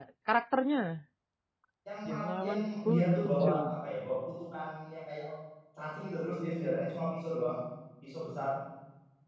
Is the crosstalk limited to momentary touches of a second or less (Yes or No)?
No